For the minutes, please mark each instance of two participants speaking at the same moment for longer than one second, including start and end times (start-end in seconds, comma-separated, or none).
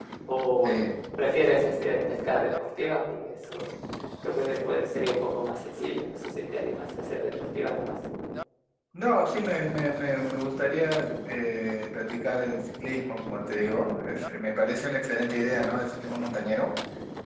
none